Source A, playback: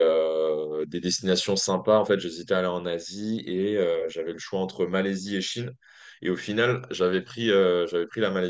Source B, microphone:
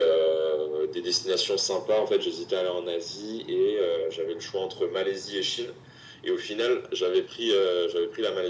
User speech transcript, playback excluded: none

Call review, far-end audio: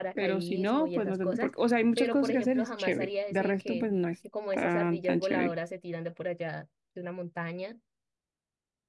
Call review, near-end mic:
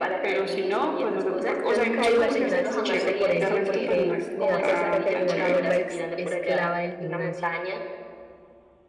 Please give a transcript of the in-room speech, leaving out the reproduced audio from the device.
Yo nunca he ido al gimnasio justo por eso, porque me da cosita que al final me vuelva ex- esclava del gimnasio.

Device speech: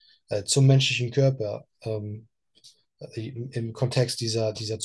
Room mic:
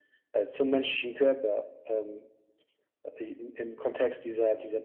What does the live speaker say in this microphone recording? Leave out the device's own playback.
none

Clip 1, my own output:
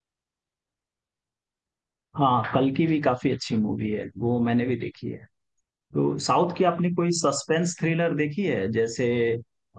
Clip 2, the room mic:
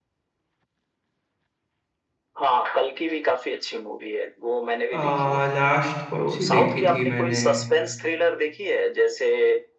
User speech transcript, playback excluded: आ, लास्ट कौन सी देखी थी मैंने

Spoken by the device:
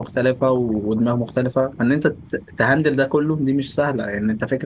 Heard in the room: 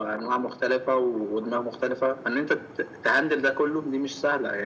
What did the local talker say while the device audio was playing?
none

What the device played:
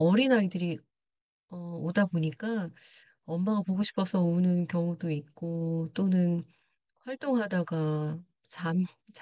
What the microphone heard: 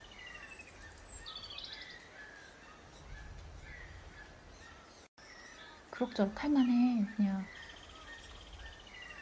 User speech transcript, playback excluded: 그럭저럭 할 만해. 그냥

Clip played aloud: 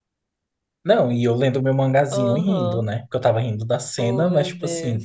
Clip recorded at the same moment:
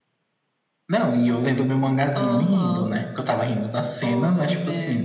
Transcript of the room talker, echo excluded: none

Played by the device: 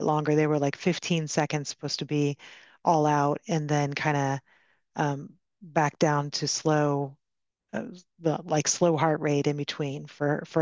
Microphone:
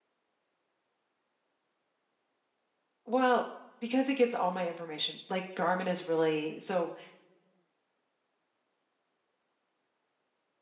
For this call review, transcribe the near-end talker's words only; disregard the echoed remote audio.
Well, because it gets all my information, like Garmin is really so

